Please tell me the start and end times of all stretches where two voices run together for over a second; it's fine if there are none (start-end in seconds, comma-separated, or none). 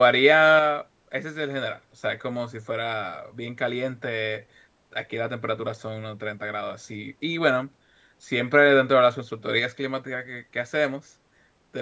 none